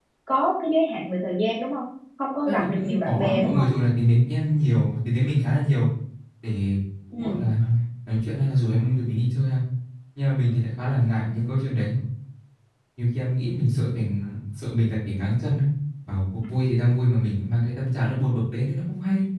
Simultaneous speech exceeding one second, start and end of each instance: 2.5-3.7

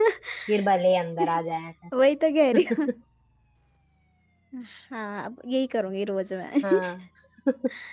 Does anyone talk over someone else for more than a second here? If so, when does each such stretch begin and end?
none

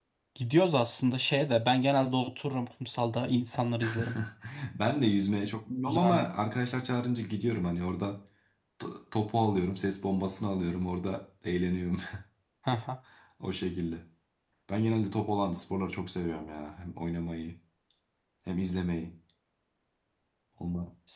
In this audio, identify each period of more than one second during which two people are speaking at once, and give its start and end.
none

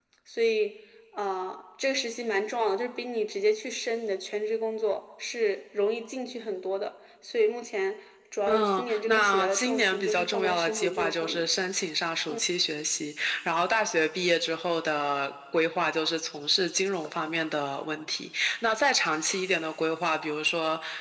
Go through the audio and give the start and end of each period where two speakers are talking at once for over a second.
8.5-11.5

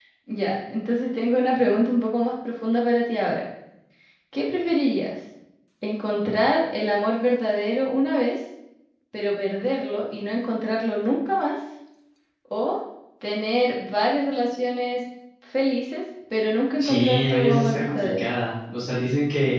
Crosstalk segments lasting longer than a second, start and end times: 16.8-18.3

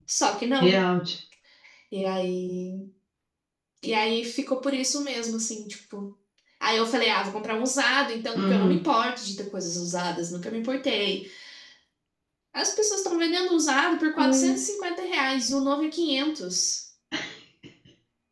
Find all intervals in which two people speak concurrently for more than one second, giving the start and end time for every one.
none

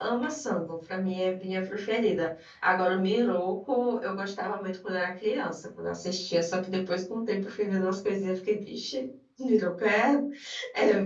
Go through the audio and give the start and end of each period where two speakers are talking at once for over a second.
none

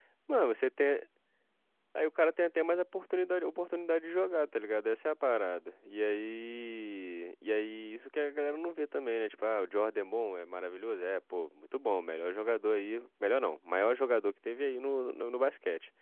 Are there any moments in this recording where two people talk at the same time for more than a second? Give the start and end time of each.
none

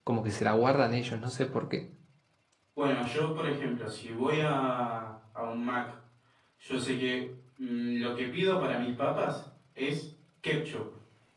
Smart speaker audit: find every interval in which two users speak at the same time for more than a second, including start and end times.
none

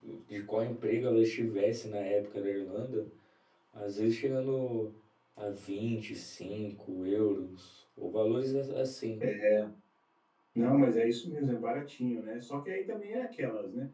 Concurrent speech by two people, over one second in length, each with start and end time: none

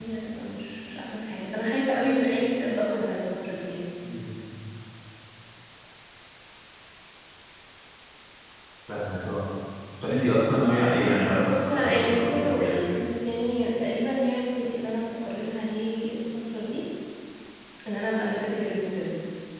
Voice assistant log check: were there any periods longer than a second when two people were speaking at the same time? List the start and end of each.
11.4-12.8

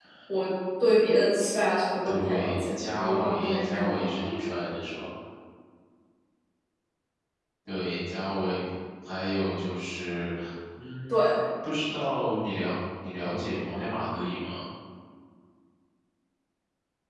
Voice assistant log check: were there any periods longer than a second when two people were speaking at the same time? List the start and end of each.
2.0-4.1

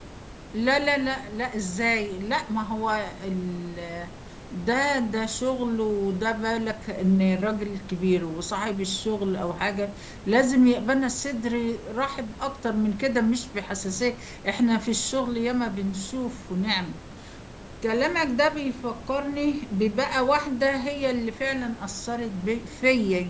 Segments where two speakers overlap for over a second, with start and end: none

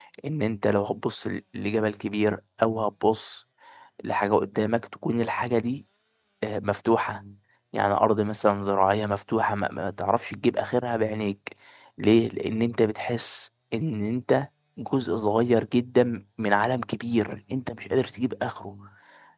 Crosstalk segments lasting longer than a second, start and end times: none

